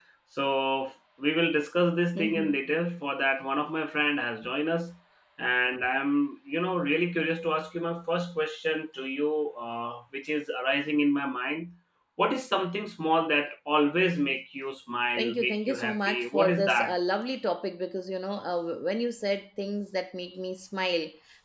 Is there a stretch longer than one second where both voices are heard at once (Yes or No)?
Yes